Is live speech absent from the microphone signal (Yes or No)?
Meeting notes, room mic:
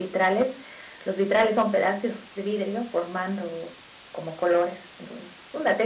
Yes